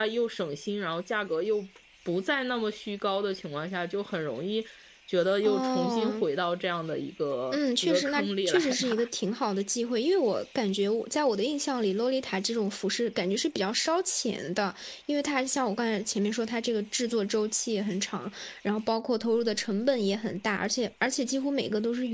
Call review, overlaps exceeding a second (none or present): present